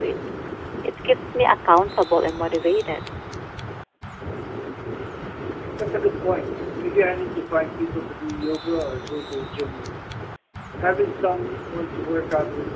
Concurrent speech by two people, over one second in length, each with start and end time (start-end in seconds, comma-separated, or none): none